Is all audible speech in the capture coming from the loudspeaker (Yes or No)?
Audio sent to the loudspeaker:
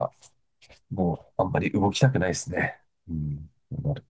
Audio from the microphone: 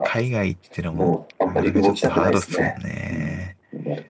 No